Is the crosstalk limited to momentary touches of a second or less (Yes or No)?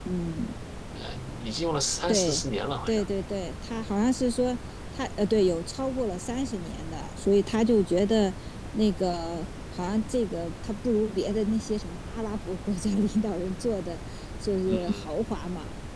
Yes